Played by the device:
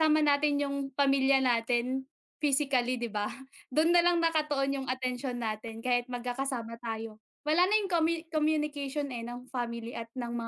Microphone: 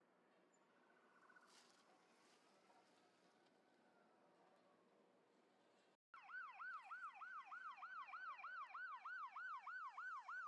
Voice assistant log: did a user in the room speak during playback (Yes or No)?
No